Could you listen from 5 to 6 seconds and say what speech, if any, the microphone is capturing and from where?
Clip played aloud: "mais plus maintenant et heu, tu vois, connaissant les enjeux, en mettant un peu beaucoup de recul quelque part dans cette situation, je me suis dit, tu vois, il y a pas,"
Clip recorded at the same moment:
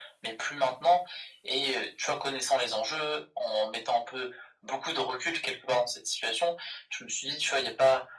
echo only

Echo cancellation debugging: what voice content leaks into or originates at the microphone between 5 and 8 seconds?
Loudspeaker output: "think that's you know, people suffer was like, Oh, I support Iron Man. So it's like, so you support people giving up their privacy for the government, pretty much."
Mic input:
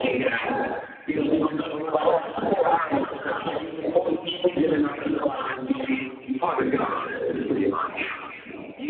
echo only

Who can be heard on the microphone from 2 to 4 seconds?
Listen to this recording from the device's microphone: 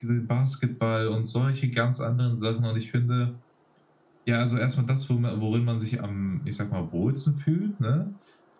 echo only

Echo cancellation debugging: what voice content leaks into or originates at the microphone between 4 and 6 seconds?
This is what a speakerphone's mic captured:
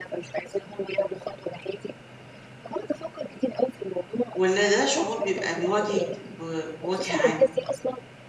both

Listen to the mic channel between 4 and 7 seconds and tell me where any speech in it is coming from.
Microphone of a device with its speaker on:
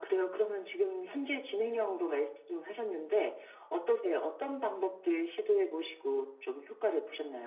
echo only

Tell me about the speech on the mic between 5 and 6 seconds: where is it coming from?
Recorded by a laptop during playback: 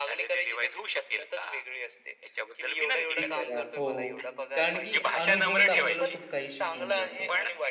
both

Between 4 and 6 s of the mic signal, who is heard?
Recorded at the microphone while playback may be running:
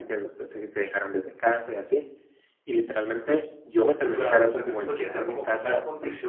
both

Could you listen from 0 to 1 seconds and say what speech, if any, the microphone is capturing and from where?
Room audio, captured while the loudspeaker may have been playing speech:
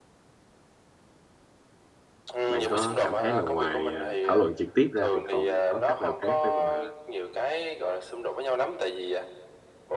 neither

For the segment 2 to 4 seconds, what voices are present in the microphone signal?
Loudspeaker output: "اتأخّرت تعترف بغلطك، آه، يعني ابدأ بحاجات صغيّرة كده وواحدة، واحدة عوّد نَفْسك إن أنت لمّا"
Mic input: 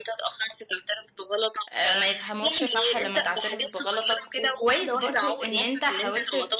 both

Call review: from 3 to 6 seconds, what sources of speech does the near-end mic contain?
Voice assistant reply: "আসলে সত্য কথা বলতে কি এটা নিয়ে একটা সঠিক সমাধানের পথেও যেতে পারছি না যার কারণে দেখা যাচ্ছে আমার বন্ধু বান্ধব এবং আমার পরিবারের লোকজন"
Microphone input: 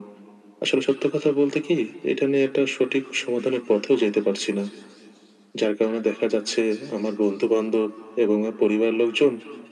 echo only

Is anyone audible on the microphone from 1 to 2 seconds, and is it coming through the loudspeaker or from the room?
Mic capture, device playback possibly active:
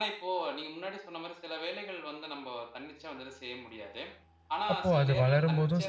echo only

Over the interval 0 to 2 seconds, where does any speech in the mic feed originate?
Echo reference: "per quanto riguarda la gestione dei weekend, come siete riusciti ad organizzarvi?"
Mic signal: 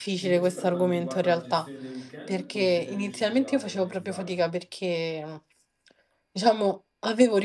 both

